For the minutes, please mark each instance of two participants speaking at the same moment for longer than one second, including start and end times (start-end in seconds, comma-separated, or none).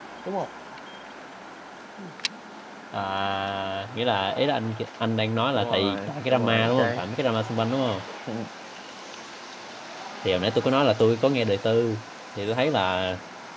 5.5-7.0